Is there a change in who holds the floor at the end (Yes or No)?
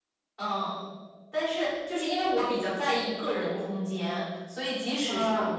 No